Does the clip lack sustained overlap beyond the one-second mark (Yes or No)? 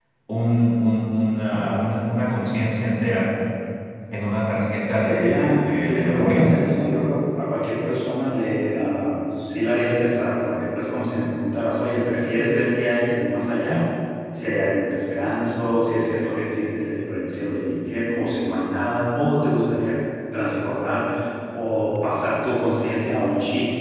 No